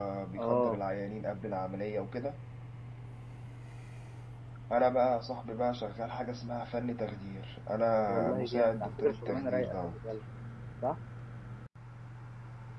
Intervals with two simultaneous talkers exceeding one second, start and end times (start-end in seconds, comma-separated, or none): 7.9-10.0